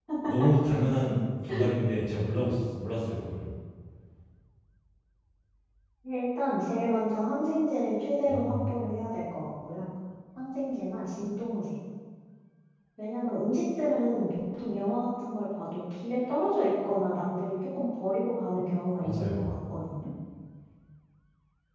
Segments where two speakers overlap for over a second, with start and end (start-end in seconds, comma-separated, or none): none